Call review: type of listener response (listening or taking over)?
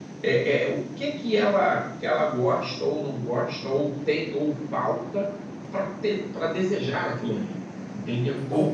taking over